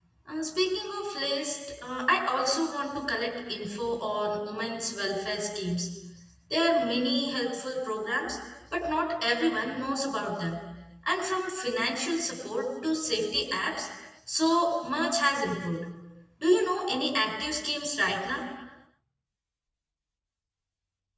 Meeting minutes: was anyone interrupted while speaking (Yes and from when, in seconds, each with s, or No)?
No